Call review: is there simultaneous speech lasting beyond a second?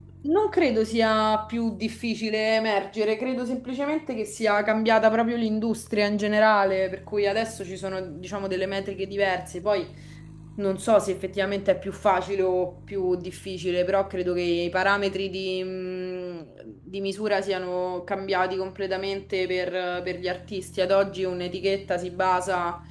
No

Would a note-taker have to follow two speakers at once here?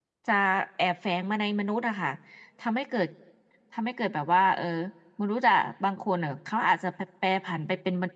No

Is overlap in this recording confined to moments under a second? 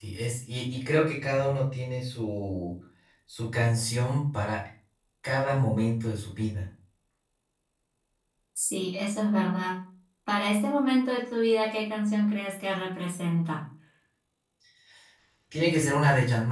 Yes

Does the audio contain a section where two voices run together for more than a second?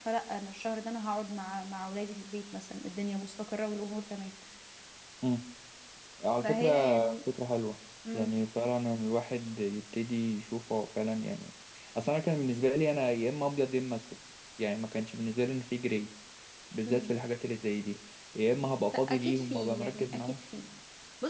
Yes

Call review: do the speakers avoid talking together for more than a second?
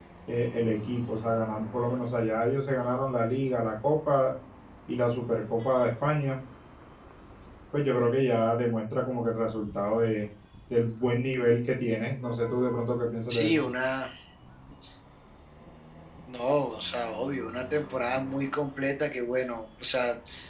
Yes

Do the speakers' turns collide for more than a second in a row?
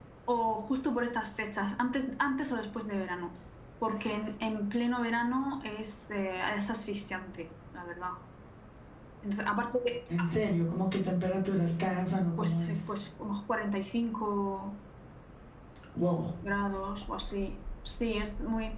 No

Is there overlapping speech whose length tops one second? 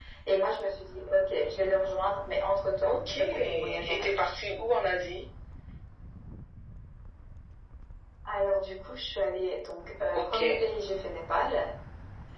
Yes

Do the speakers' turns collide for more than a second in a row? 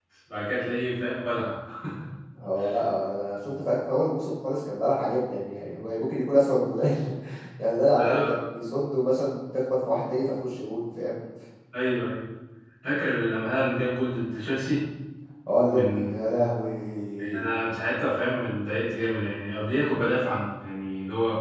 No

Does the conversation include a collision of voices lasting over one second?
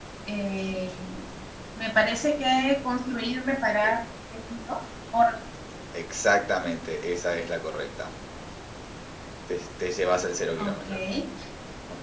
No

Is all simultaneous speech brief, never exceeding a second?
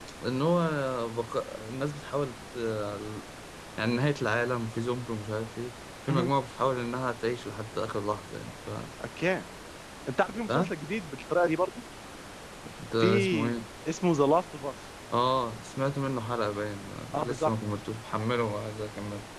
Yes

